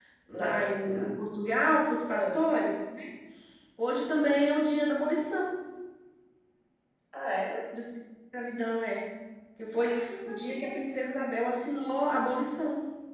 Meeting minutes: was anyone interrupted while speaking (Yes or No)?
Yes